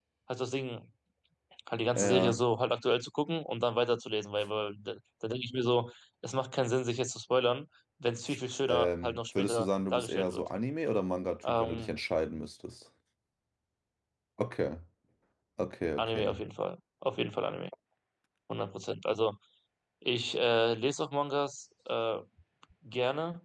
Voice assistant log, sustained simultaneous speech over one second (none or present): present